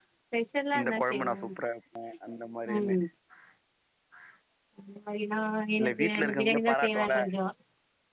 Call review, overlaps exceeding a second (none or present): present